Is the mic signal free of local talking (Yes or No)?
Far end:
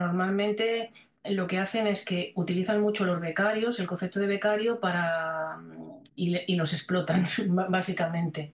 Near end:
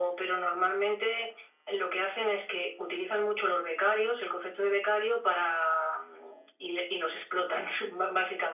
Yes